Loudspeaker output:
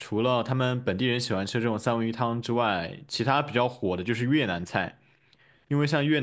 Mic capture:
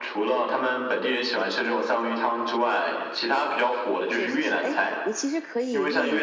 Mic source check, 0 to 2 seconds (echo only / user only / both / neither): echo only